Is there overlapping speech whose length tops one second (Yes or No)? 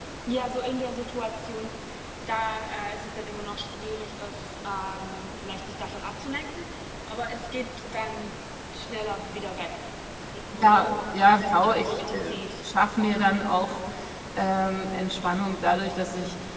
Yes